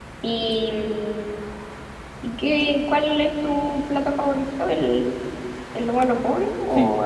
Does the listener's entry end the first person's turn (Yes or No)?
Yes